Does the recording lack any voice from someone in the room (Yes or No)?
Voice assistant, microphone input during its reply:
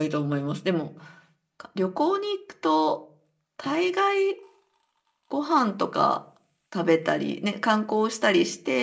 No